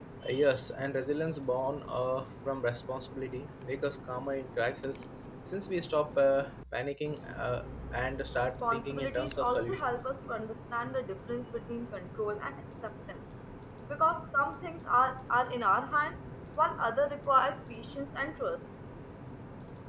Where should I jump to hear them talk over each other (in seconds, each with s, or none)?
8.6 s